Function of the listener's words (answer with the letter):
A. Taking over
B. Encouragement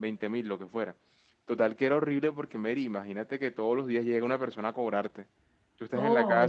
B